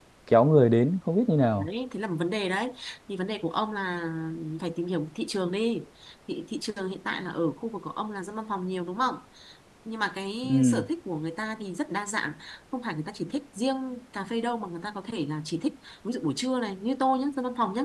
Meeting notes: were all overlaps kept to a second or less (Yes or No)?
Yes